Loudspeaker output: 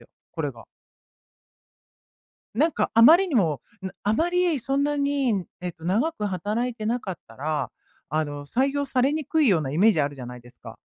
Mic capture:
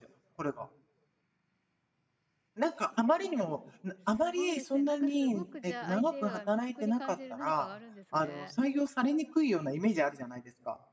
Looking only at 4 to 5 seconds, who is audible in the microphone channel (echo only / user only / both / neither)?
both